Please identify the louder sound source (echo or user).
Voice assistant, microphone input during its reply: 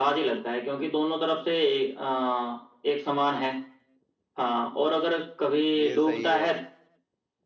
echo